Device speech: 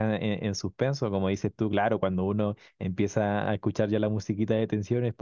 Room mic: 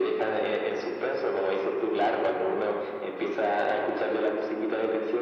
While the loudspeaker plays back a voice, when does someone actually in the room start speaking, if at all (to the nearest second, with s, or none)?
none